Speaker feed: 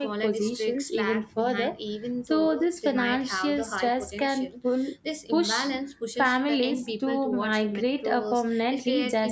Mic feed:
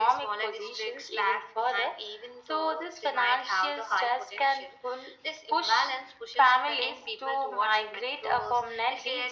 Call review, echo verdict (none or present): present